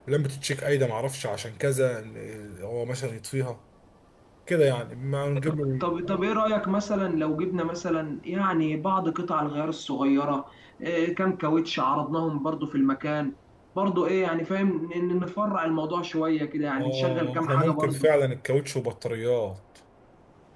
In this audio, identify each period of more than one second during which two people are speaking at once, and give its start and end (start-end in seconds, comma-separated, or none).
16.8-18.1